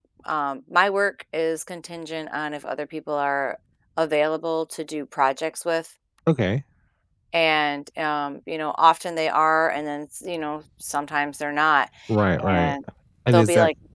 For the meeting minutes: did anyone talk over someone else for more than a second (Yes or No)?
No